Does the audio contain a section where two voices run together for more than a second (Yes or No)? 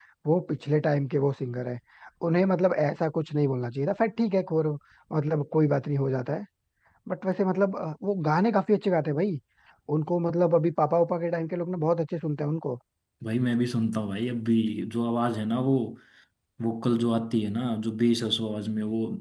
No